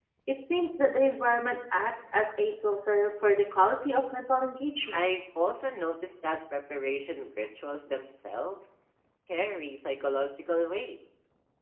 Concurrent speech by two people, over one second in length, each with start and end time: none

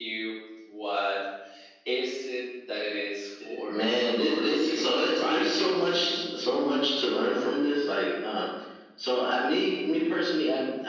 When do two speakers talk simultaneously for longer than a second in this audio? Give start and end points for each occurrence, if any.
3.7-5.7

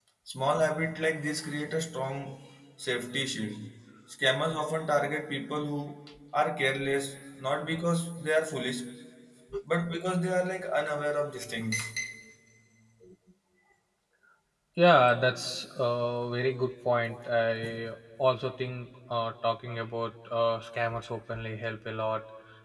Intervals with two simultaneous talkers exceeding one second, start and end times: none

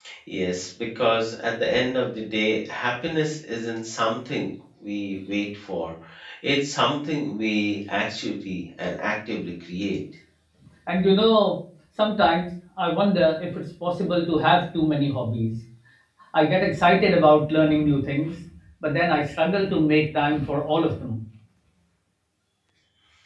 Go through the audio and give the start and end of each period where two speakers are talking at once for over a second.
none

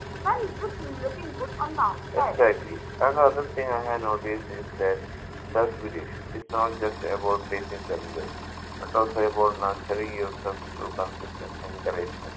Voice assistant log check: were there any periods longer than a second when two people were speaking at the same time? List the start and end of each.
none

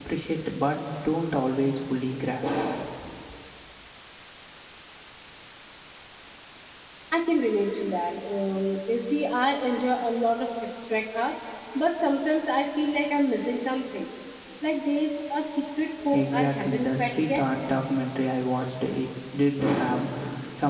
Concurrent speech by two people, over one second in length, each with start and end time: 16.1-17.4

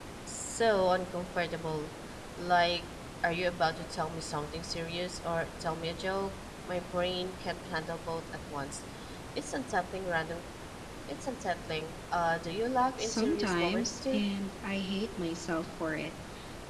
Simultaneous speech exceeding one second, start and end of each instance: 13.0-14.2

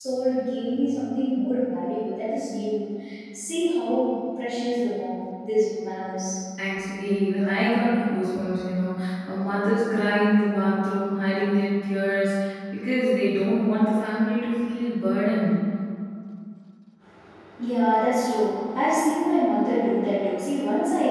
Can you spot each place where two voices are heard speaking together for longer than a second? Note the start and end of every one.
none

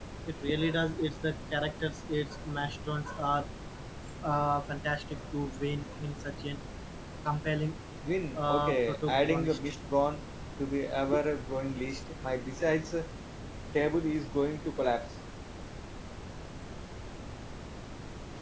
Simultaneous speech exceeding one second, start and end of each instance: 8.3-9.6

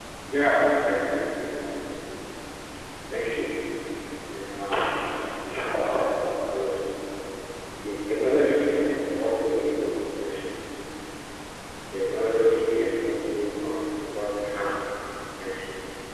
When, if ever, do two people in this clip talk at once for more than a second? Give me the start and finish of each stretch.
none

